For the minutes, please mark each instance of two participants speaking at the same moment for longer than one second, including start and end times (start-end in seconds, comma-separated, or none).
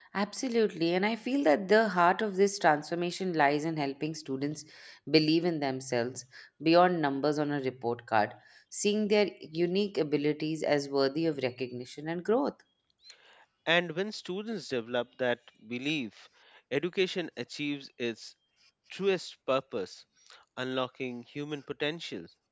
none